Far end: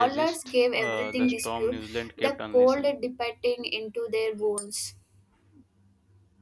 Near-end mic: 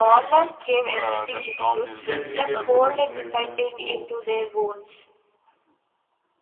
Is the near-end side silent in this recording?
No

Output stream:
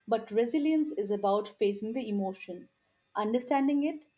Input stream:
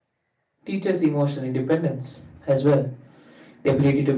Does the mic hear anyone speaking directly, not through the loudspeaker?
Yes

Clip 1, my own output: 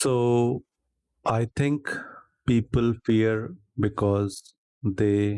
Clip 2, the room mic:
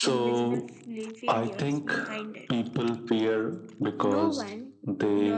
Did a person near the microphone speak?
Yes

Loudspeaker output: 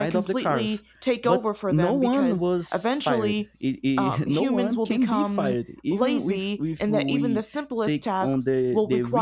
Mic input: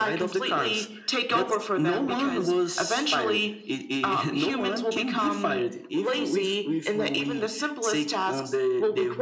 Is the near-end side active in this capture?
No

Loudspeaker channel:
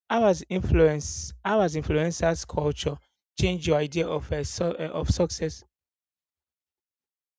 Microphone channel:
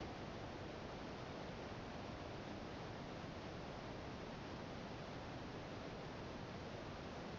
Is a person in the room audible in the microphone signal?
No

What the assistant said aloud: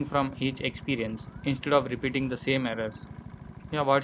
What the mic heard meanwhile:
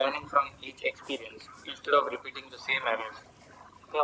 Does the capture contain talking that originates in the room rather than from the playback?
No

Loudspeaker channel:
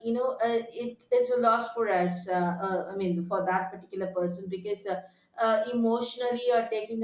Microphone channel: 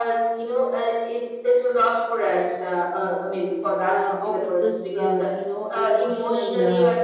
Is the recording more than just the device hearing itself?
Yes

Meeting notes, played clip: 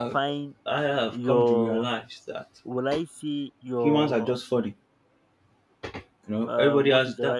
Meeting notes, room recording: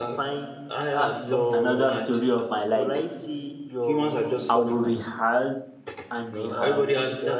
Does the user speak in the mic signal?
Yes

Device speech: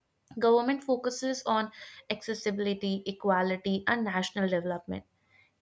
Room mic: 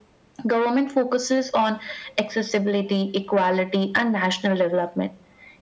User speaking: No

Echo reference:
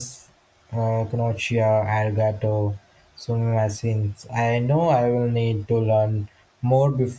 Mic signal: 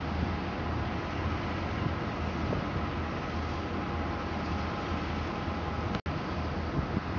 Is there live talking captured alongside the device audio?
No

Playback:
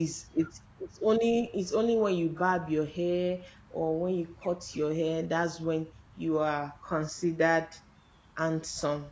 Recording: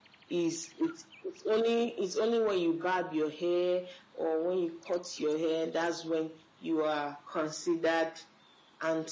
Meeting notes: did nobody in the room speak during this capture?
Yes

